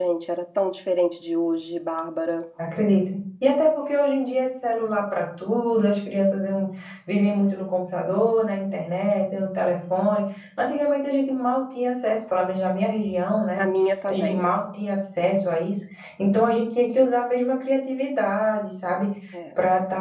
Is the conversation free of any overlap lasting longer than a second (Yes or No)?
Yes